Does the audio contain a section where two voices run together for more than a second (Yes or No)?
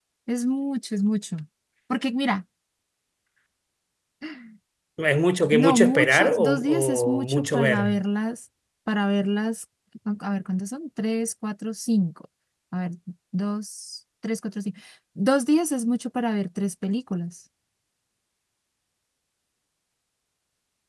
Yes